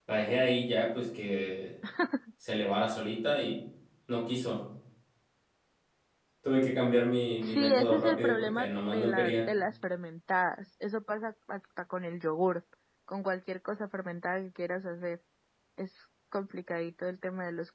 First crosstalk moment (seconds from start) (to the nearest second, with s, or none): 7 s